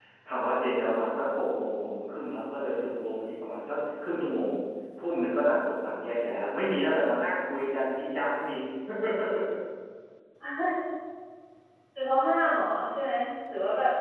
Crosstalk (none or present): none